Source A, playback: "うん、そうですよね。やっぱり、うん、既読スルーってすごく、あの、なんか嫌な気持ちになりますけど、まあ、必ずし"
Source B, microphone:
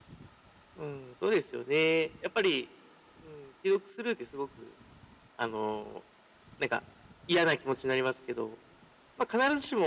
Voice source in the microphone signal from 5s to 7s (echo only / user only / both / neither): echo only